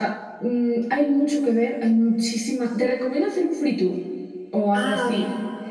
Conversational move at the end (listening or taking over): listening